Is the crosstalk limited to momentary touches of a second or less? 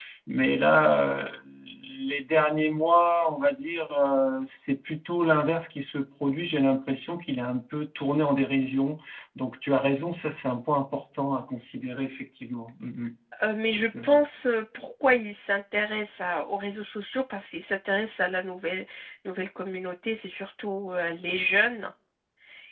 Yes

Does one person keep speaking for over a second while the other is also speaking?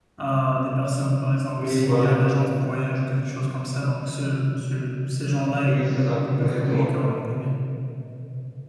Yes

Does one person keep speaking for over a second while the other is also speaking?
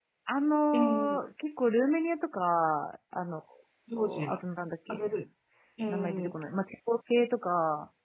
No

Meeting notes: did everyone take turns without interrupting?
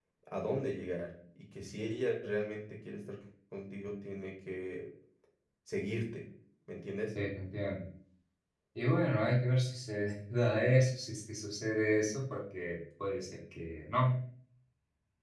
Yes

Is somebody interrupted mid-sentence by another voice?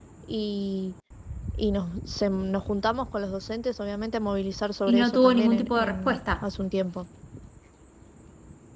Yes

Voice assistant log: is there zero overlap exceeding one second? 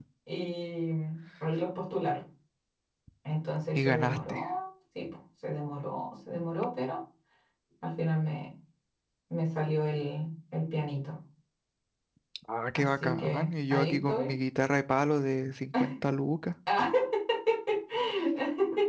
No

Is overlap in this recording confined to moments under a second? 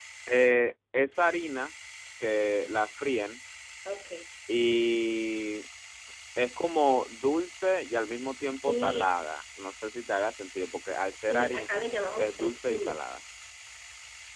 No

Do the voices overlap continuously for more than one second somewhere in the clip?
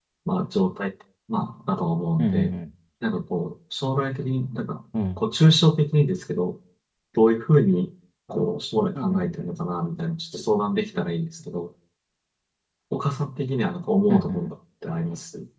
No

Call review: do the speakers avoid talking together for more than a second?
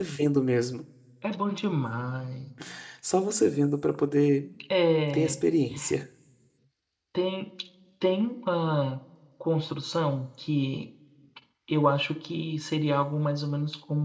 Yes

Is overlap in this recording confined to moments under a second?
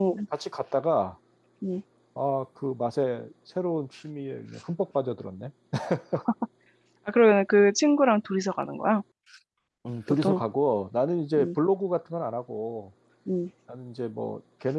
Yes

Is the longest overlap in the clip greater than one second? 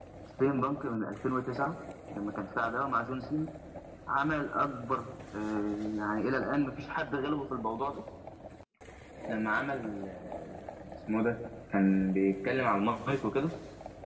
No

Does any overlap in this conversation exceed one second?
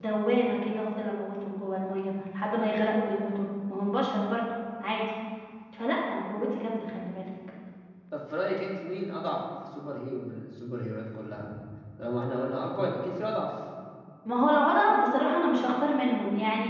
No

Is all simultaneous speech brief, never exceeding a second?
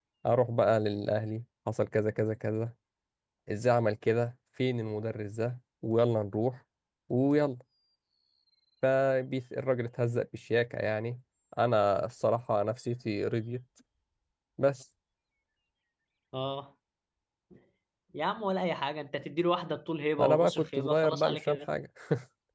No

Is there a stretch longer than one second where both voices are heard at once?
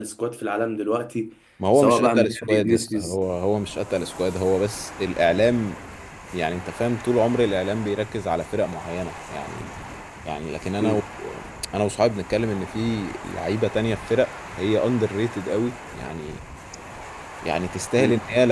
Yes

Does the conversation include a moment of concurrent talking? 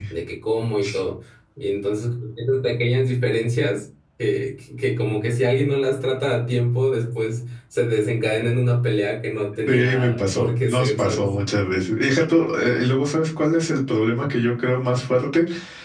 Yes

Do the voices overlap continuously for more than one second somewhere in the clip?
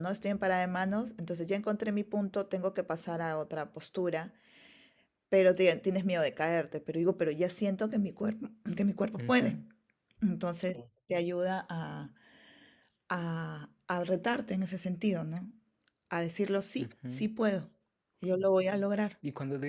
No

